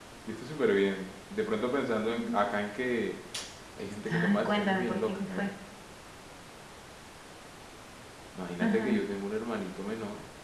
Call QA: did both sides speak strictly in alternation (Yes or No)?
No